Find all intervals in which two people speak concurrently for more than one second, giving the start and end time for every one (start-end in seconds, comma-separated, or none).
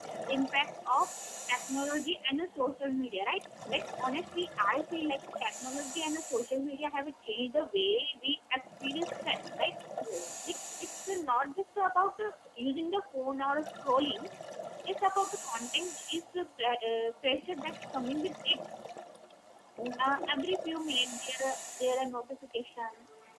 none